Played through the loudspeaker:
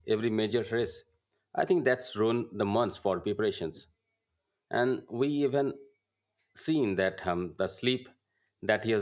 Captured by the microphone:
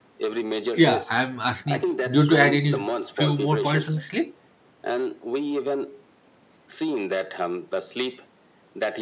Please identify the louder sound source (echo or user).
user